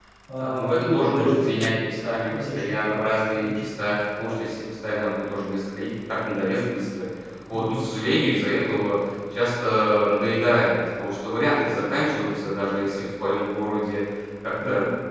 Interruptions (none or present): present